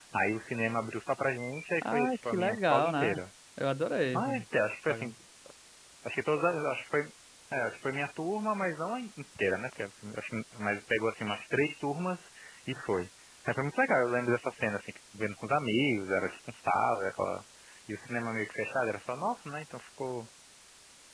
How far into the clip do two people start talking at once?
1.8 s

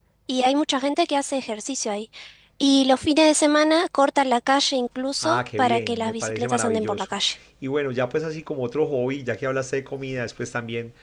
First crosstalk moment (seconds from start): 5.2 s

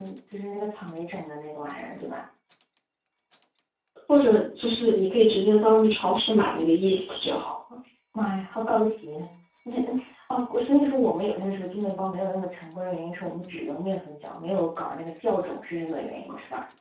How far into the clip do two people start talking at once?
none

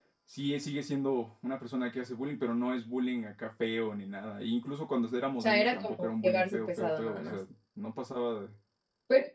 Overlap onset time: 5.4 s

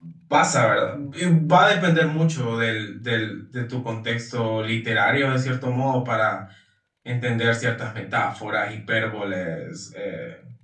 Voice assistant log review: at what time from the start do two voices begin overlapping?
none

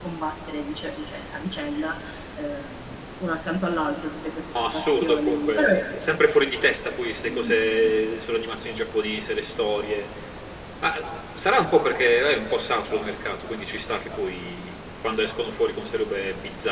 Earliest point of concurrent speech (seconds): 4.5 s

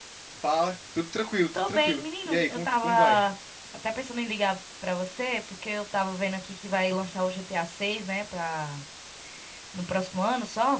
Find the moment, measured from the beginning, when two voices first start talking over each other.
1.5 s

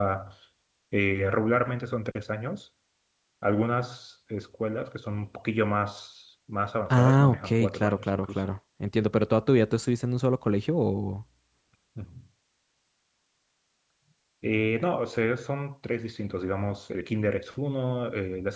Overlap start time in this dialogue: 6.9 s

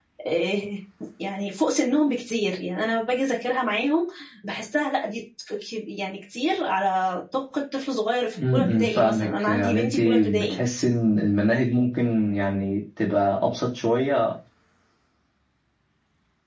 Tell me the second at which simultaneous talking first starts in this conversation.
8.4 s

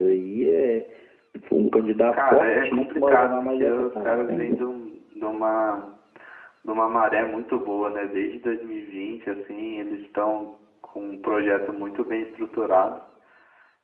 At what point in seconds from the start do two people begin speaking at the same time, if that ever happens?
2.1 s

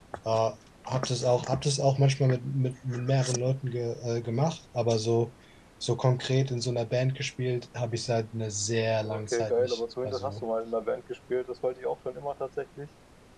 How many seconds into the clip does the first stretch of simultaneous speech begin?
9.0 s

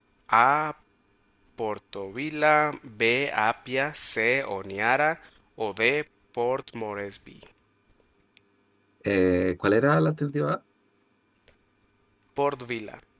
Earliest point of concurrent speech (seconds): none

